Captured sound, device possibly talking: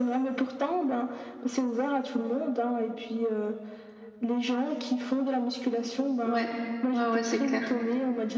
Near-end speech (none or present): present